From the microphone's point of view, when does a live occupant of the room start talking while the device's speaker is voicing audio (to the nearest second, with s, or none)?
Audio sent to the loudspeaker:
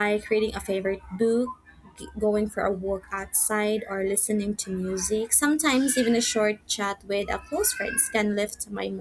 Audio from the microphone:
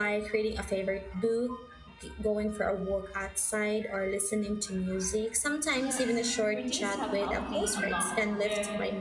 6 s